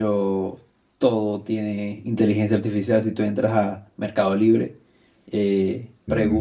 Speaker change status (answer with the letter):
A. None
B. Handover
A